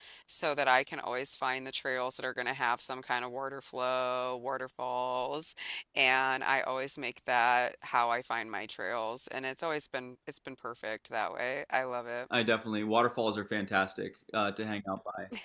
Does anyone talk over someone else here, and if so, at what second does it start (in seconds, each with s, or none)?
none